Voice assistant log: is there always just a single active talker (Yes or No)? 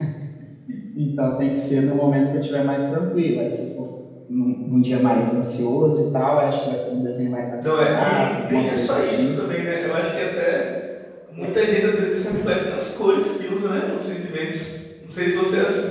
No